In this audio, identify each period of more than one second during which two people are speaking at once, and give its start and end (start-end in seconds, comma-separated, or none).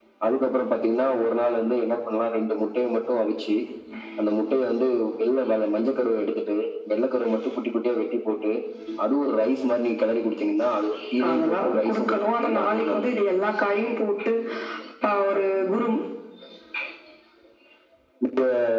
11.3-13.1